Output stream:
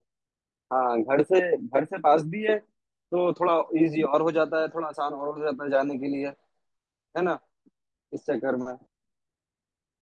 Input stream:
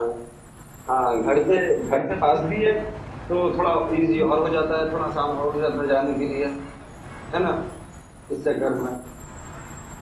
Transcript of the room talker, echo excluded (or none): none